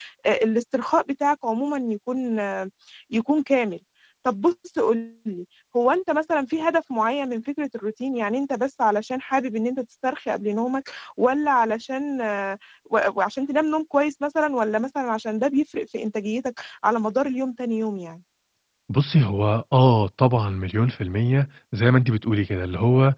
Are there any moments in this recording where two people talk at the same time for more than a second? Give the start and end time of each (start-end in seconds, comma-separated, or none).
none